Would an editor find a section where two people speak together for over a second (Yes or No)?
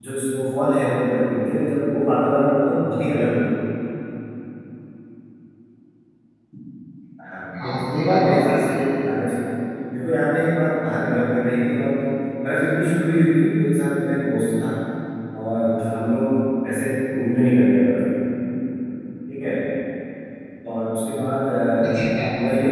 Yes